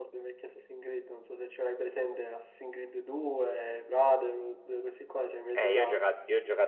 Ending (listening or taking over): taking over